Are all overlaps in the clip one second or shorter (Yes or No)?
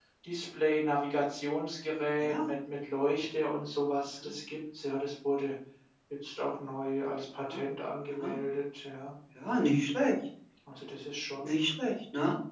Yes